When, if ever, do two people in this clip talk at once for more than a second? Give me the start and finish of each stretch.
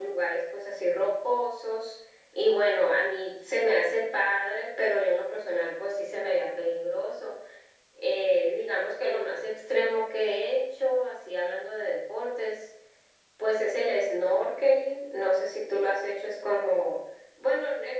none

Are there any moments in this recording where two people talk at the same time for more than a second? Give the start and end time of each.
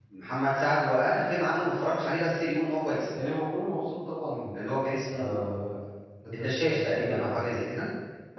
6.3-7.6

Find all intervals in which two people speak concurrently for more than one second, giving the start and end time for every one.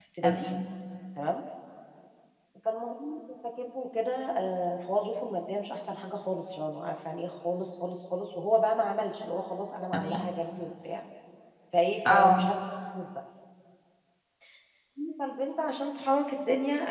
none

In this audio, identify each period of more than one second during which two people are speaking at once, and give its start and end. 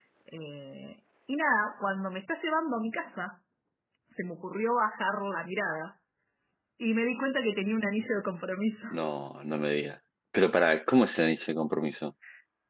none

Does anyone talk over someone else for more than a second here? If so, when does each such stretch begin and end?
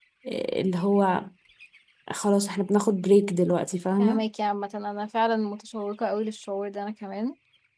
none

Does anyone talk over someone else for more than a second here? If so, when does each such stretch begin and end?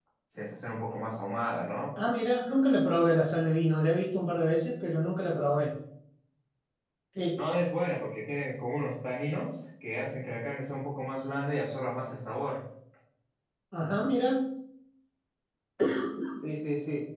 none

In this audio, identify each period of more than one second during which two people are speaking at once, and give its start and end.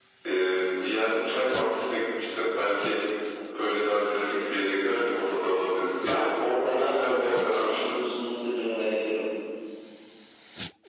6.0-7.8

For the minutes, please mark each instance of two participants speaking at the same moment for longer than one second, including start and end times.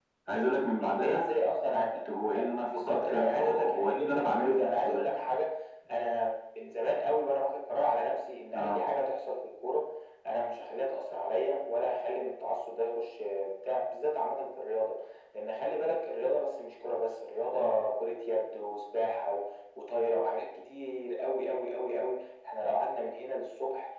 2.6-5.1

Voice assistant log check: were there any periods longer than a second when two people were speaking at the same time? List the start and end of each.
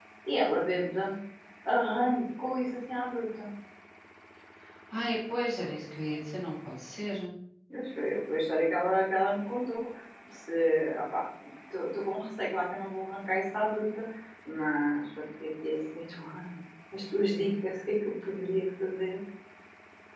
none

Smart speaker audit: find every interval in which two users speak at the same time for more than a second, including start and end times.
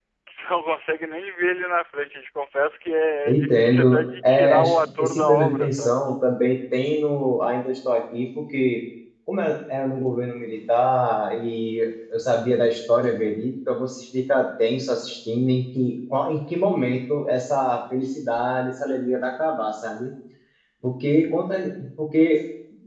3.2-6.0

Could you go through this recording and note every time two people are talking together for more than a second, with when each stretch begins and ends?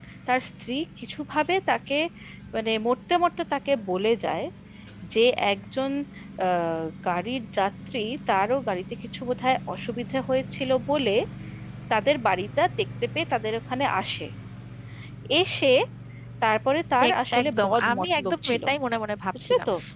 17.1-18.6

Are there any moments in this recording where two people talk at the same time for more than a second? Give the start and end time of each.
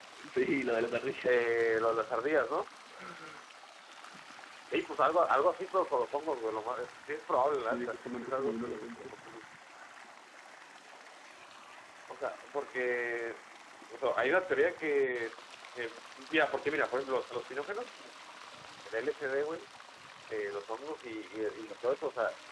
7.6-9.1

